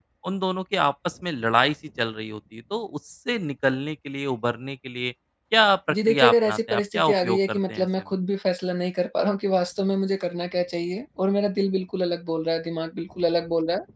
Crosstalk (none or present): present